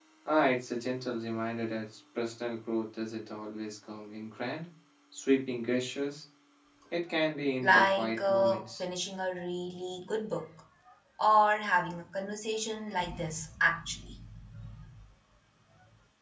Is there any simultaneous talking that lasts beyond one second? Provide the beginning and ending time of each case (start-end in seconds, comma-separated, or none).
7.6-8.8